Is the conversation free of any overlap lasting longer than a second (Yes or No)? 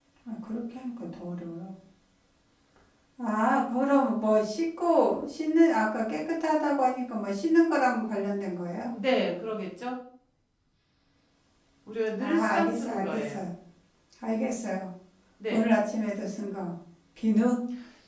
No